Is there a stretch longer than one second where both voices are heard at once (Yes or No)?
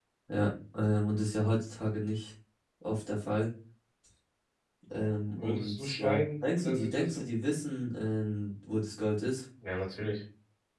Yes